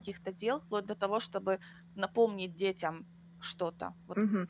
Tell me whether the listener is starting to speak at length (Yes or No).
Yes